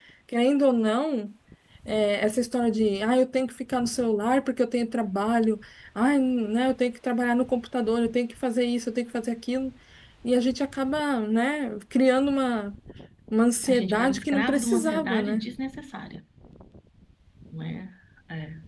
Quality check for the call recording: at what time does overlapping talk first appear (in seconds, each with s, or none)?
13.7 s